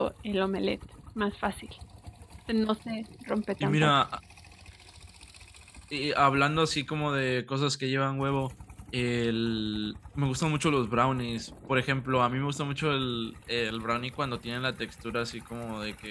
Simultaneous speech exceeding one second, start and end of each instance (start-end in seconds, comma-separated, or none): none